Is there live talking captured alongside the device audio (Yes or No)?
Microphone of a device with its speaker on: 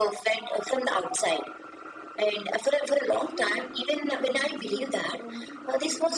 Yes